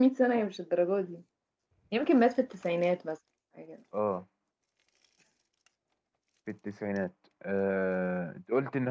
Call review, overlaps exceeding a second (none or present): none